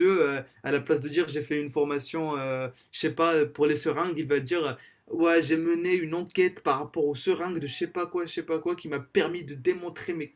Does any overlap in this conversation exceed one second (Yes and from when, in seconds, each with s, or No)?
No